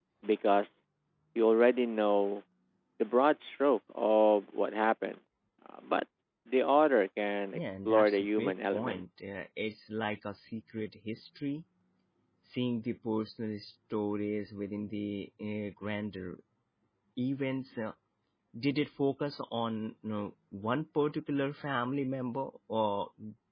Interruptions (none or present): present